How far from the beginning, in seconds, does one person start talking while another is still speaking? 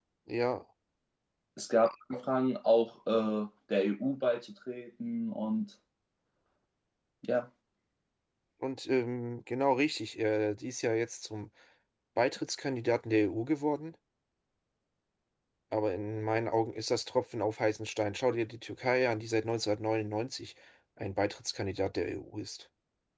none

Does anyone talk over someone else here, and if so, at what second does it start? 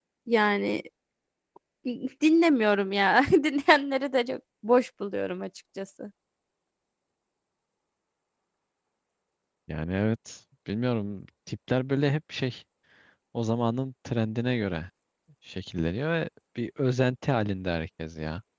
none

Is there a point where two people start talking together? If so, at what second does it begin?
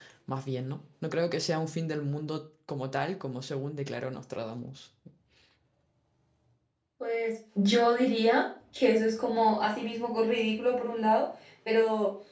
none

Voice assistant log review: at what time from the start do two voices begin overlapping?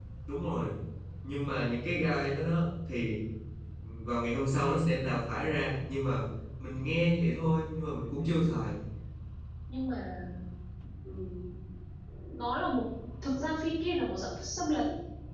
none

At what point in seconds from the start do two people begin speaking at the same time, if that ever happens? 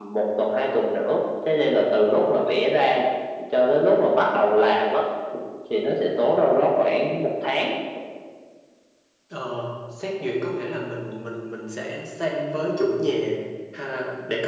none

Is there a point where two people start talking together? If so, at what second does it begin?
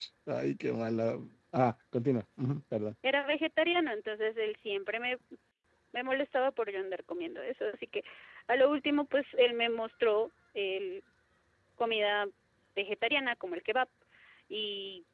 none

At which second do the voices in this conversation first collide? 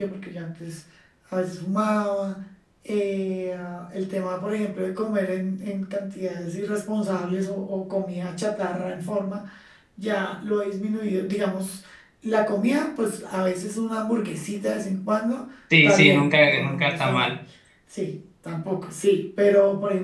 15.7 s

